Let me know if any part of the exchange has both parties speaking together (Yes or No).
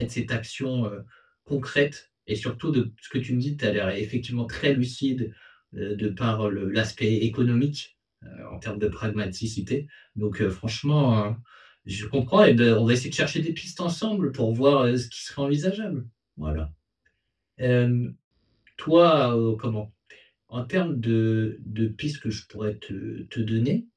No